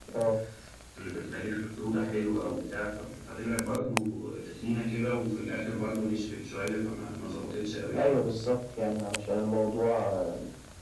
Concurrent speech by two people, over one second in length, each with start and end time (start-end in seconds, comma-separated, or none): none